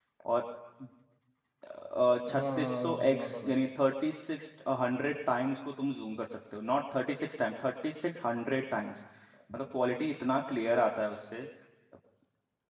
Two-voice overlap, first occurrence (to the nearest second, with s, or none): 2 s